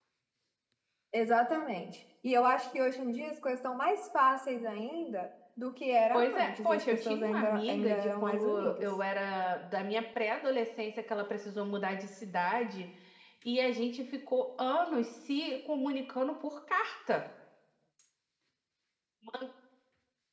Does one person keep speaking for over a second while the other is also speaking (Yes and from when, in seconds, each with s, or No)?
Yes, from 6.1 s